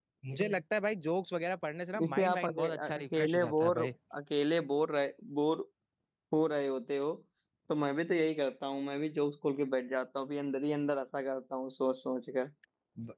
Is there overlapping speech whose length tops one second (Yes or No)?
Yes